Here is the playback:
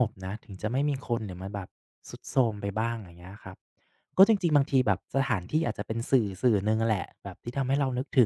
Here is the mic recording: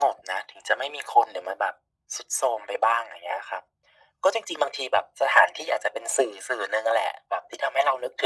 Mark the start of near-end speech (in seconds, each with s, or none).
none